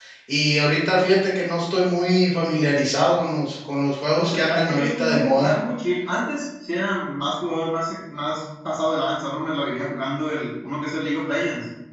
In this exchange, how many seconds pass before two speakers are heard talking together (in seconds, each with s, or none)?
4.2 s